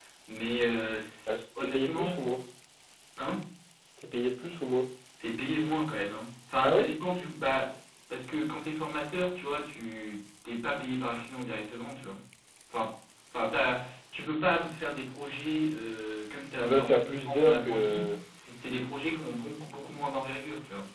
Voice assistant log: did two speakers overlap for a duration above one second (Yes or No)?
Yes